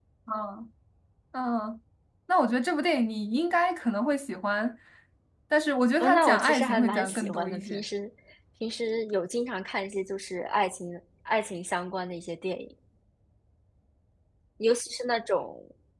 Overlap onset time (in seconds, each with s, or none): 6.0 s